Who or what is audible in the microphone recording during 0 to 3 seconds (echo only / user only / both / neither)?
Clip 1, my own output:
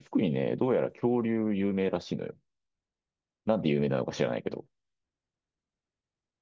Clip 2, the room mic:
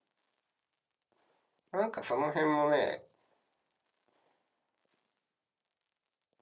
user only